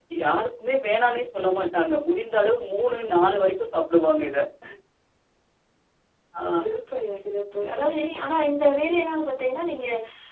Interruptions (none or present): none